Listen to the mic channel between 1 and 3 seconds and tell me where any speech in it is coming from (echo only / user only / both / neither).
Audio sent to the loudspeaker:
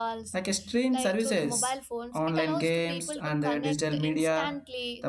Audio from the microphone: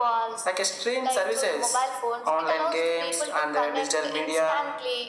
echo only